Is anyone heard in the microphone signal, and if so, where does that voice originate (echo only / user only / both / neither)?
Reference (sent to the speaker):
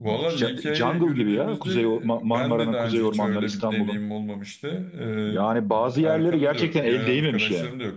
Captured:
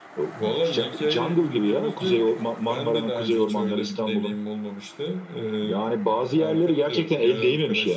echo only